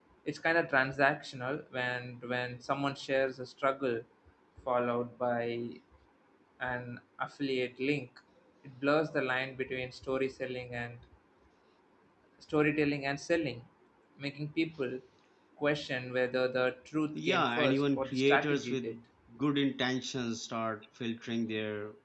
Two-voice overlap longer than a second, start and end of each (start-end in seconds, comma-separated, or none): 17.1-19.0